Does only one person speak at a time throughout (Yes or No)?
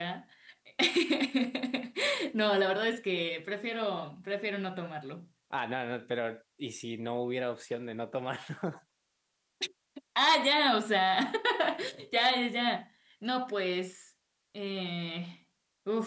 Yes